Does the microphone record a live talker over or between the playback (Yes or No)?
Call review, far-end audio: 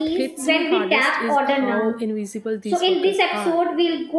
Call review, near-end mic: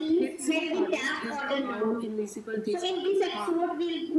No